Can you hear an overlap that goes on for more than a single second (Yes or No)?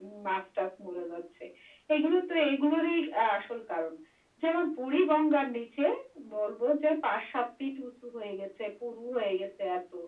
No